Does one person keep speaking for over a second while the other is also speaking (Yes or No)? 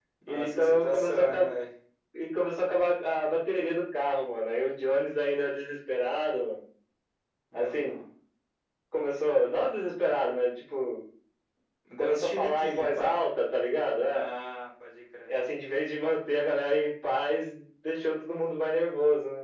Yes